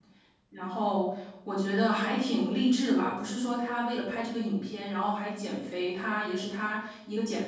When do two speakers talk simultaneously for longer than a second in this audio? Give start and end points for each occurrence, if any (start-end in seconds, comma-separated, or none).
none